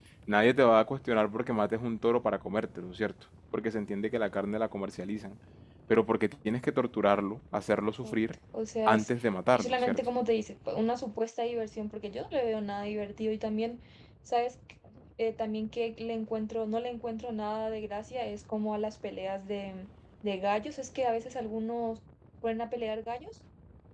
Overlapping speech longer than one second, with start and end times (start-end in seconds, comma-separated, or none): none